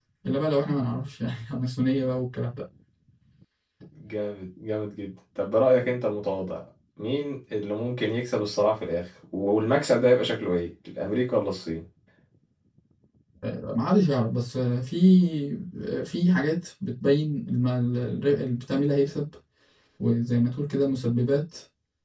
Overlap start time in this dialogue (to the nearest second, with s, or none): none